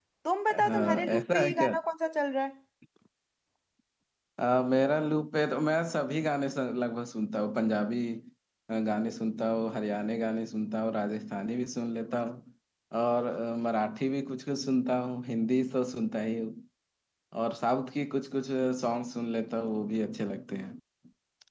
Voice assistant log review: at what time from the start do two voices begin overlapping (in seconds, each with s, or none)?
0.5 s